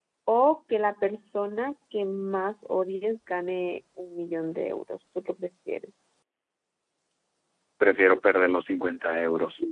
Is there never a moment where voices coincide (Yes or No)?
Yes